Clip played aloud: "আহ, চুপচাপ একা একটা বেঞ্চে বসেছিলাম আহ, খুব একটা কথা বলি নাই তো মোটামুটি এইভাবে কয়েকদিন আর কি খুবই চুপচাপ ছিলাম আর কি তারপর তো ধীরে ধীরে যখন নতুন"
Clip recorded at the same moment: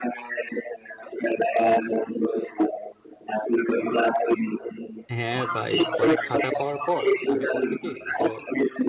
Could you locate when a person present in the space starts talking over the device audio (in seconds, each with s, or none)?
5.2 s